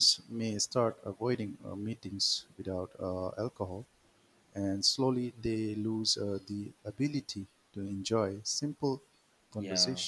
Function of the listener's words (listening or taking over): listening